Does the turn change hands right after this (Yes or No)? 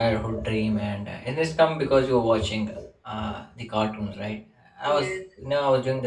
No